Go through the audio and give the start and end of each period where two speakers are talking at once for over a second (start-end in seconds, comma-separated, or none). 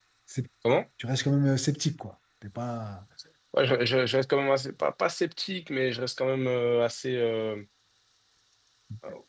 none